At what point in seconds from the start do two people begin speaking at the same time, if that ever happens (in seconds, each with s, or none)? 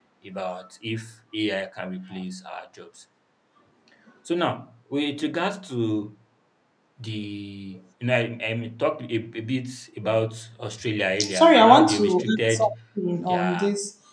11.2 s